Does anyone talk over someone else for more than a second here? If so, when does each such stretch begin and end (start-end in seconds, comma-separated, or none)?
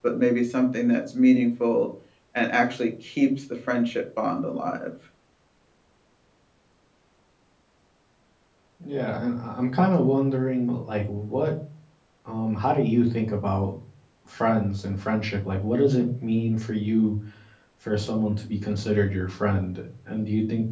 none